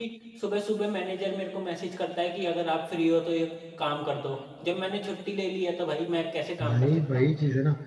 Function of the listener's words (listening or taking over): taking over